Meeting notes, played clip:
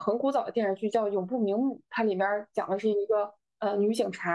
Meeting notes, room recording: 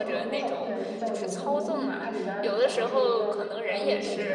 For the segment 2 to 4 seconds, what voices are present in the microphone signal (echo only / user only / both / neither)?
both